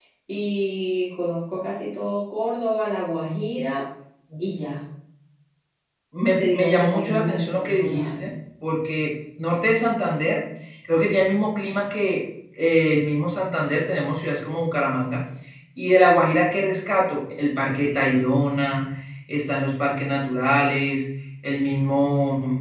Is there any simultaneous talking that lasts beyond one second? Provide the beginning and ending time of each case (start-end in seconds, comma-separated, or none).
6.4-8.2